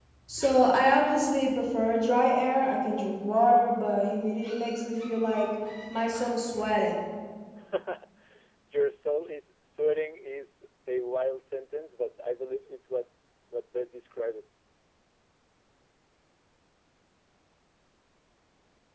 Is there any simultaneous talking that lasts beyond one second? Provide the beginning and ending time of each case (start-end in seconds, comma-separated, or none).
none